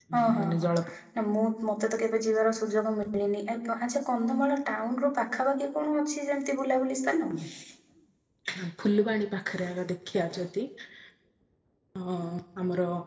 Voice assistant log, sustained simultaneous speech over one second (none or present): none